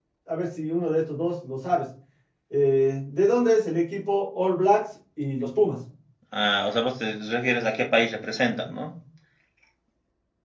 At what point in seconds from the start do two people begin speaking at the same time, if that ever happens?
none

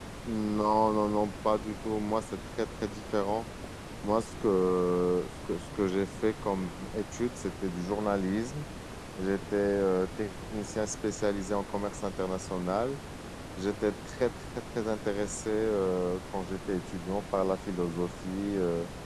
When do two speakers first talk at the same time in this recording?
none

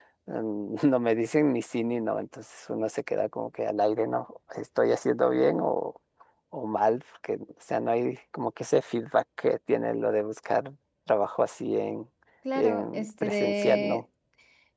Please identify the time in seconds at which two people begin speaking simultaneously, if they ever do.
12.6 s

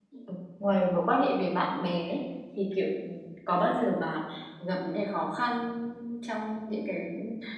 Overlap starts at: none

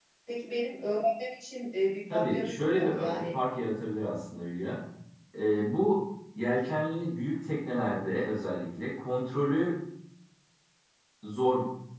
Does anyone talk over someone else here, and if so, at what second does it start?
2.1 s

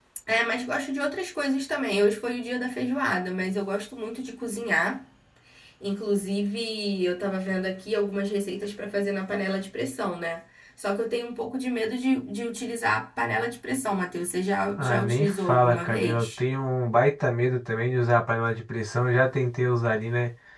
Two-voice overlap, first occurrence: 14.8 s

